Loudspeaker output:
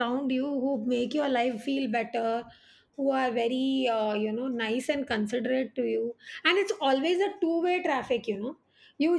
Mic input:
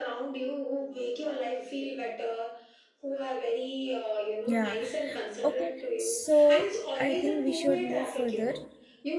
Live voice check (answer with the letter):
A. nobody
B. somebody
B